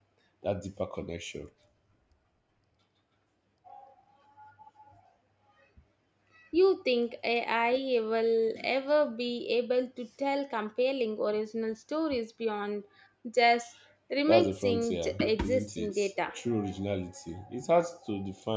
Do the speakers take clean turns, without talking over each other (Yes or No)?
No